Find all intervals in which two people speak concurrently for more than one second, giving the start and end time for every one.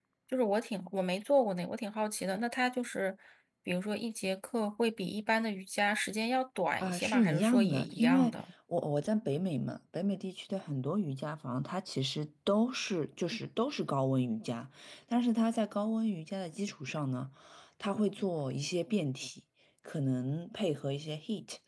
6.8-8.3

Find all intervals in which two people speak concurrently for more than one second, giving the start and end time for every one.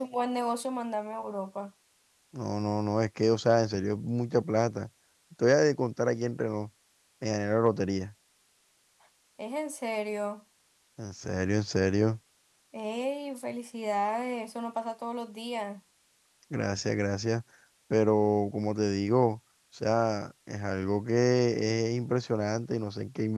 none

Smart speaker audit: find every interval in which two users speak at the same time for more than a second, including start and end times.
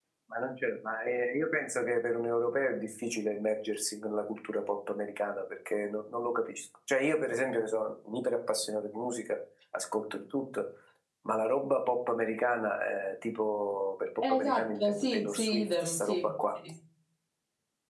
14.3-16.3

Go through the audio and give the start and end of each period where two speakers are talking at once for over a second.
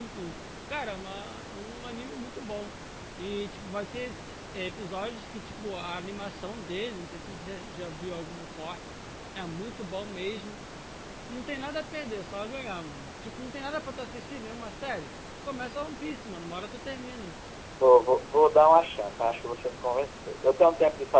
none

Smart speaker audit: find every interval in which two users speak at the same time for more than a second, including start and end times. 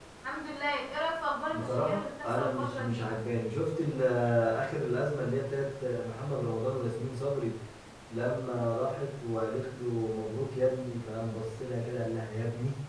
1.5-3.1

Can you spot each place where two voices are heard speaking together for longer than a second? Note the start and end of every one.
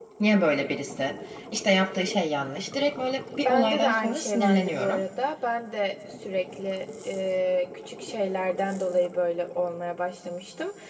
3.5-5.0

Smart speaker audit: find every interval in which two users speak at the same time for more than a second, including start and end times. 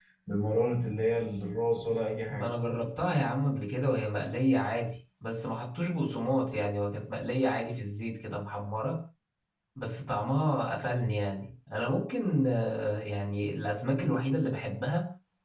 none

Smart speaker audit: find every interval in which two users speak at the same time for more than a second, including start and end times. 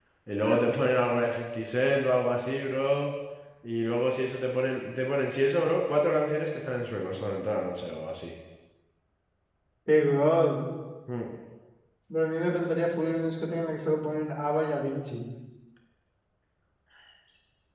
none

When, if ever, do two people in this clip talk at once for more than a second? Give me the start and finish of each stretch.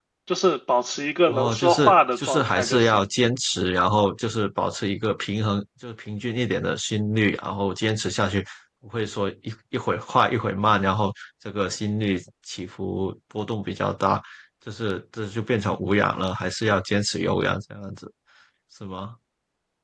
1.3-3.1

